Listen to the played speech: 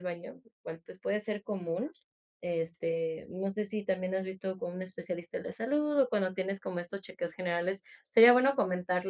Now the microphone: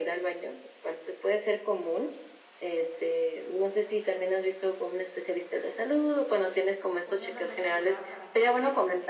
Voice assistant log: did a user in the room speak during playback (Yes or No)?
Yes